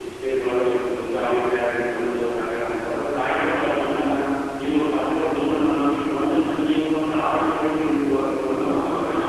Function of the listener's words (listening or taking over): taking over